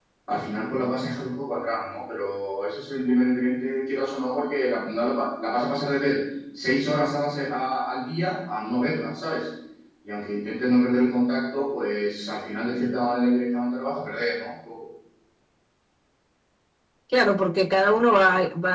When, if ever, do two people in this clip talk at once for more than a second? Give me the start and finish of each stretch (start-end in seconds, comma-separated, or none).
none